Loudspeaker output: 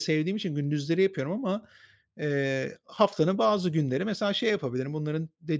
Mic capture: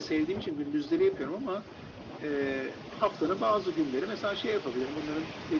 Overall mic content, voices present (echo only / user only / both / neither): echo only